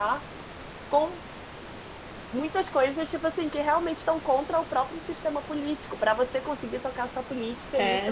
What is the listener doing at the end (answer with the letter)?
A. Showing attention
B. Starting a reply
B